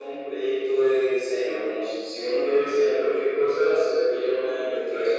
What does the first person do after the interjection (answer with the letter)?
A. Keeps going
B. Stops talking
A